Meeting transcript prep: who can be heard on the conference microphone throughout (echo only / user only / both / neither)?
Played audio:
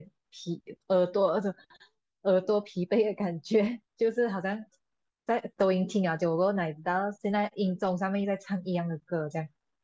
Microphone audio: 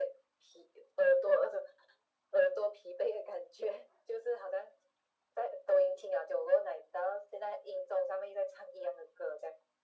echo only